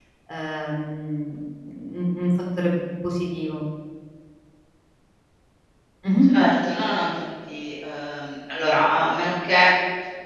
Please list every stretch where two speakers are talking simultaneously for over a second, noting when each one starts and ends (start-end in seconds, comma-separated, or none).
none